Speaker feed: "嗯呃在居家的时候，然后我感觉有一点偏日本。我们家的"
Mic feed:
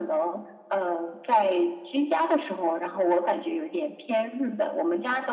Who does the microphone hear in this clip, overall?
echo only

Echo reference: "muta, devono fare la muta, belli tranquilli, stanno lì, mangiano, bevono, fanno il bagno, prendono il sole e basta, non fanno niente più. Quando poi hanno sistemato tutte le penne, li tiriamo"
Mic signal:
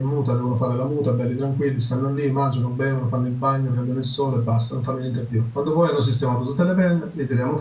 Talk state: echo only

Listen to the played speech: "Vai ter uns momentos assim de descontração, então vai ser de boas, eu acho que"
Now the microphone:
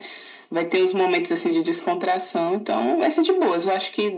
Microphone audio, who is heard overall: echo only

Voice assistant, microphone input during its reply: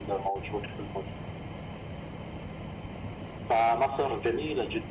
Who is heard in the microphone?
echo only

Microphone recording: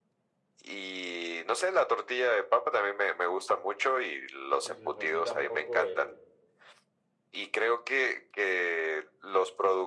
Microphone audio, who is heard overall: both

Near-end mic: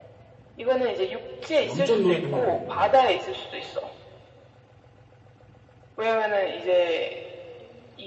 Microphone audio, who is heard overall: both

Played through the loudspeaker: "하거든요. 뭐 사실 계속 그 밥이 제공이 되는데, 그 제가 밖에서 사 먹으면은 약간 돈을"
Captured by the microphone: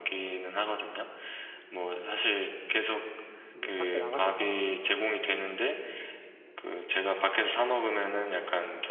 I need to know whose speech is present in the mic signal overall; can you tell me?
both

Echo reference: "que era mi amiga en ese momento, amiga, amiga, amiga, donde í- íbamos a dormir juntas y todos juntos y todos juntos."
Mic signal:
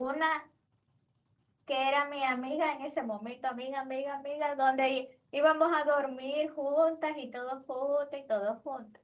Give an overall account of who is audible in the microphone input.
echo only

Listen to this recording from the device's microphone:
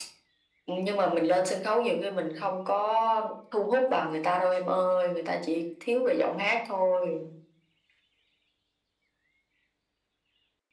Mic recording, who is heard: echo only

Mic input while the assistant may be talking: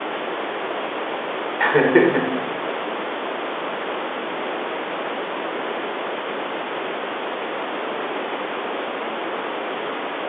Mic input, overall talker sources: user only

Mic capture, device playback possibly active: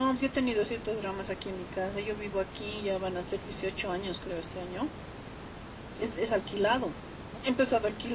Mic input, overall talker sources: echo only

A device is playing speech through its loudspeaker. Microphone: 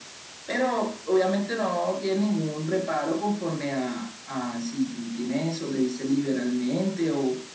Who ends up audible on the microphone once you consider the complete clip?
echo only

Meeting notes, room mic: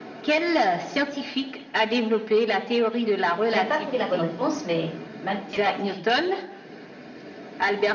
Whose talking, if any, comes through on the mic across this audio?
both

